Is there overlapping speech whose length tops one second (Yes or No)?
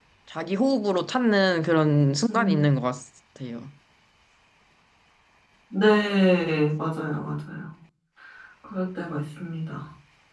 No